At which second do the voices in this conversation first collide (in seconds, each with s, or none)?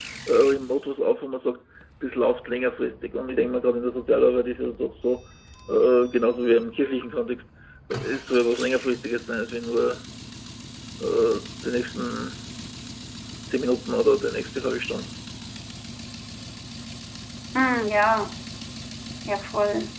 none